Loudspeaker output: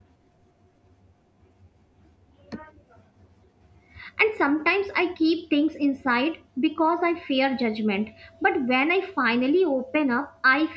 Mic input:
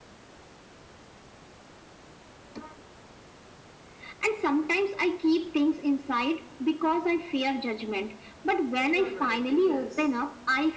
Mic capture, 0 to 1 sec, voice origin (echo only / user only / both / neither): neither